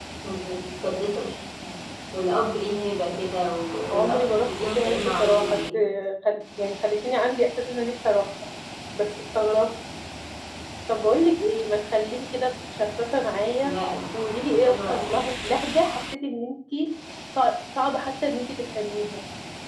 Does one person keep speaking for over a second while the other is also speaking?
Yes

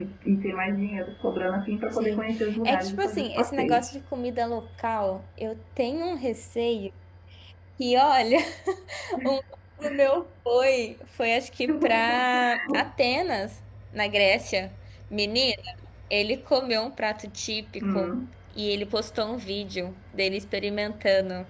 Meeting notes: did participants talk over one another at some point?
Yes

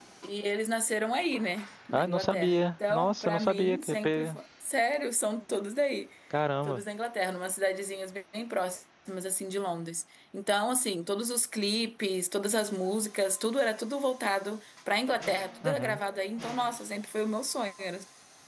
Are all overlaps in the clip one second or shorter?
No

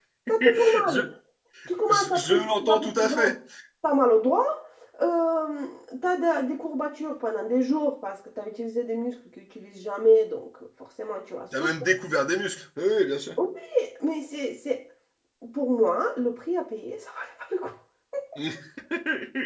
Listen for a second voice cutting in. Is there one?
Yes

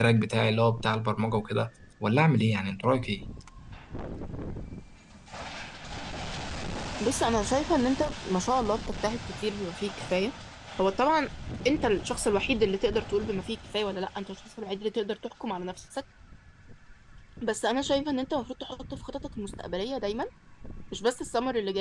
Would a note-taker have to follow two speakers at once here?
No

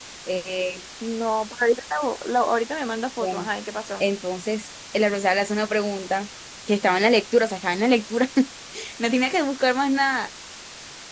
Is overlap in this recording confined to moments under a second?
Yes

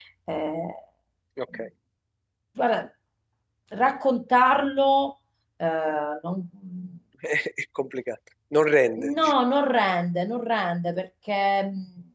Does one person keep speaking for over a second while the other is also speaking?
No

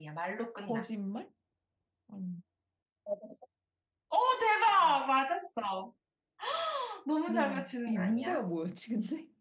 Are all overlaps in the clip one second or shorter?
No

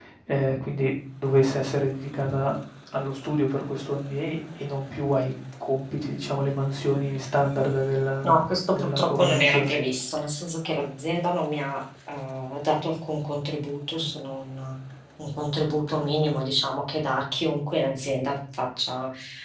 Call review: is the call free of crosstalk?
No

